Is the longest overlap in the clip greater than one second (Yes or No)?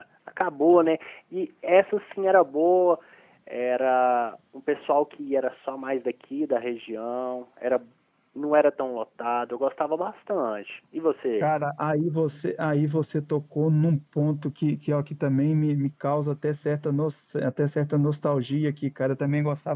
No